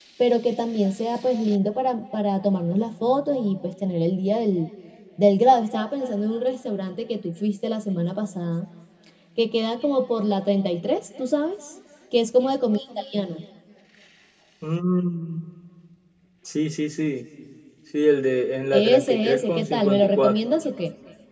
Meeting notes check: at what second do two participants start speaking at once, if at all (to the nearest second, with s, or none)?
19 s